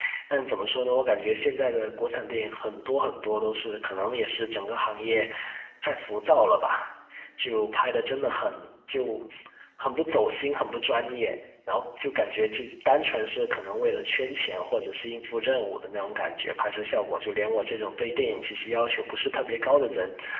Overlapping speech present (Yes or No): No